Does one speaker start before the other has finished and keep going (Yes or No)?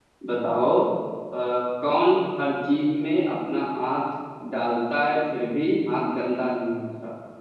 No